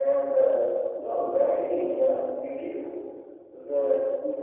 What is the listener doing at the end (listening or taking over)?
listening